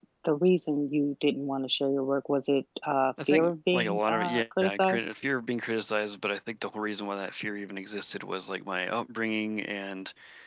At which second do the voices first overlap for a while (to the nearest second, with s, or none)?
3 s